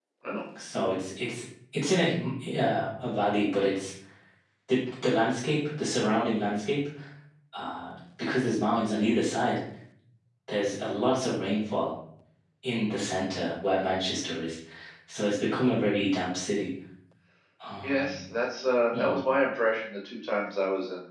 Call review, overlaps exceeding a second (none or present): none